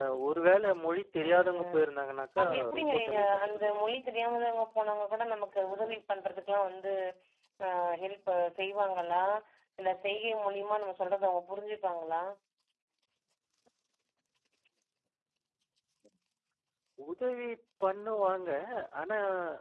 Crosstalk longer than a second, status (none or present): present